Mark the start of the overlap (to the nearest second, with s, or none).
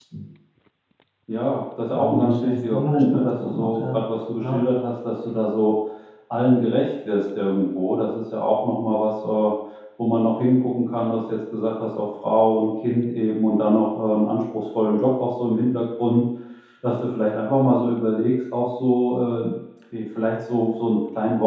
2 s